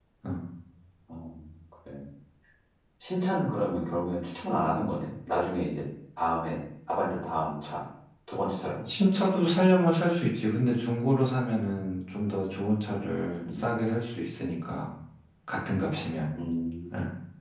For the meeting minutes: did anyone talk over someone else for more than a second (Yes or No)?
No